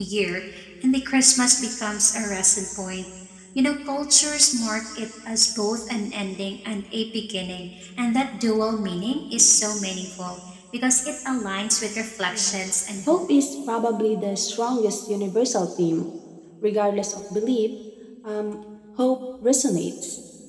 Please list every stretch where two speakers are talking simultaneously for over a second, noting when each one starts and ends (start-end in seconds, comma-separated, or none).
none